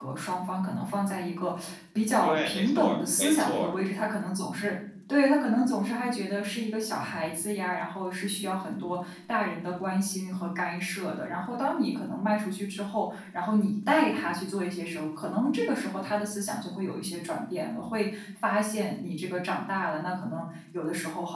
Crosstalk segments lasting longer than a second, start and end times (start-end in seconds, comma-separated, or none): 2.2-3.7